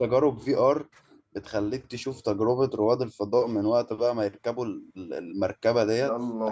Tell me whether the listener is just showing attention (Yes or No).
Yes